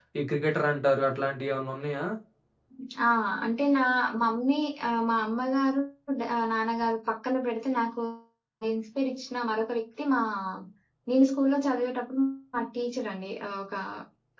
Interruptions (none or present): none